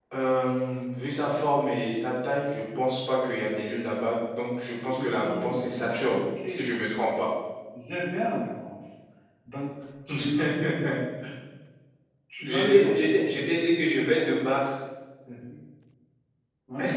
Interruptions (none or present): present